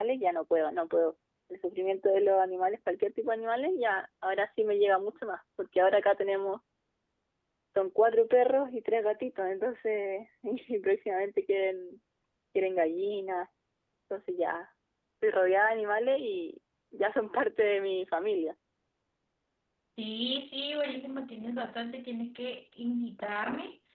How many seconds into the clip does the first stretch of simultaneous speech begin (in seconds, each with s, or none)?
none